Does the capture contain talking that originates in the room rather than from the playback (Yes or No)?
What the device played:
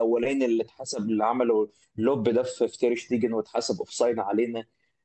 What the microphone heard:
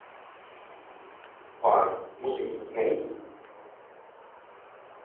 Yes